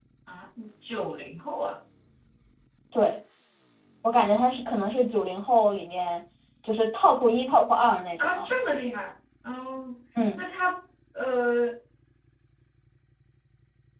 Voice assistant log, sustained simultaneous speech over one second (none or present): none